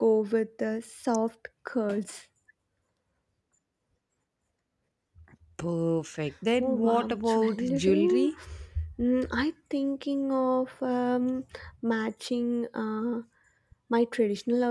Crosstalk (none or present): present